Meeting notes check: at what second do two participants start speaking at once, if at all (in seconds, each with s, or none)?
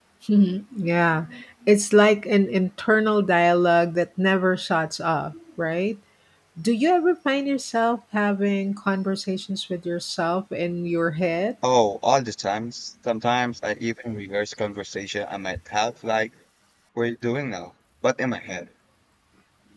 none